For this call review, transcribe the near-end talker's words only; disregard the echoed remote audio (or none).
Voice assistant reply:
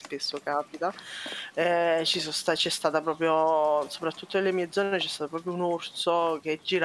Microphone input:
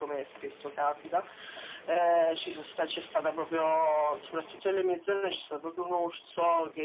none